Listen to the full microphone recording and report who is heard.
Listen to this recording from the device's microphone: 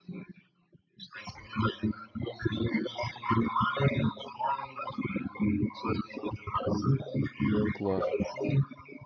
both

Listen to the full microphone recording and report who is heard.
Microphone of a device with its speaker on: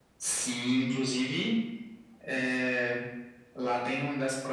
echo only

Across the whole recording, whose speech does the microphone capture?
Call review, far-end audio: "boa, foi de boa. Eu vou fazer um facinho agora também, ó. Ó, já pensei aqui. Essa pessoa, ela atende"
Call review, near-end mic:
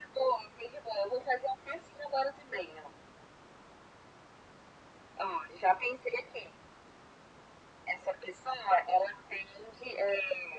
echo only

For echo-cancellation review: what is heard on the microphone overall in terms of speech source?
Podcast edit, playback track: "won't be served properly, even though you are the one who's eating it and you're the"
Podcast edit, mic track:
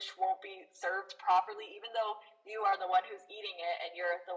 echo only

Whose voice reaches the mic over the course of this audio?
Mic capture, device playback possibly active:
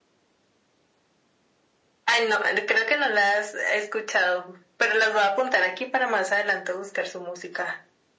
echo only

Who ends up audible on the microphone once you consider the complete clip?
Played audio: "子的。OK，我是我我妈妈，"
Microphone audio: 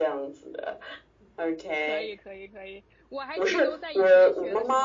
both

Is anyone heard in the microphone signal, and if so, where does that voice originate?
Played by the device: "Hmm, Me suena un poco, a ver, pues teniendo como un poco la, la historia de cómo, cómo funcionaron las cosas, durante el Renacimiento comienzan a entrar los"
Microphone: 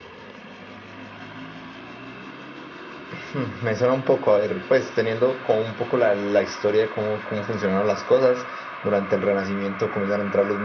echo only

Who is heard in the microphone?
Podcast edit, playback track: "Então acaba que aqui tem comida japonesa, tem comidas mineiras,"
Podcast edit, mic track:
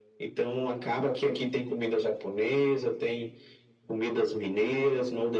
echo only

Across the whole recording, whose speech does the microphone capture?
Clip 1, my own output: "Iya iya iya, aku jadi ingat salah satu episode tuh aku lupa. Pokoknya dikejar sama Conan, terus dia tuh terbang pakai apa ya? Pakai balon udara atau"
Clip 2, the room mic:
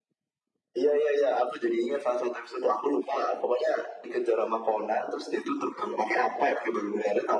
echo only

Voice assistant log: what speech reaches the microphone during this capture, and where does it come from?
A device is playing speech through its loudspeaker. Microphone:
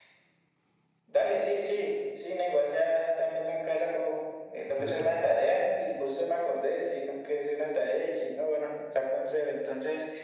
both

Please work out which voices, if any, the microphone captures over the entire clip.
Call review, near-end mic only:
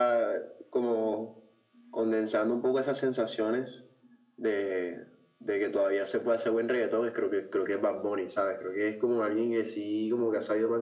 echo only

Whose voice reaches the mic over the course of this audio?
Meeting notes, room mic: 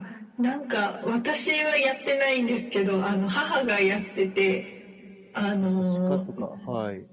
both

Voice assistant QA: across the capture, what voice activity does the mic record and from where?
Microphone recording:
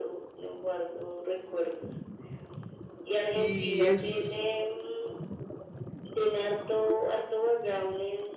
both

